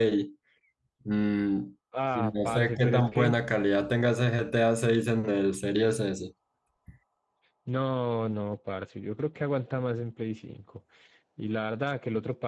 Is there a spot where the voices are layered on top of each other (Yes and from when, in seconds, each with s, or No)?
Yes, from 2.1 s